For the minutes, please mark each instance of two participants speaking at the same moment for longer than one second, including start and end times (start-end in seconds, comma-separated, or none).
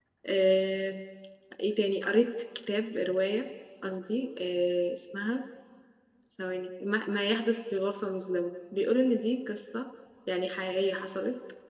none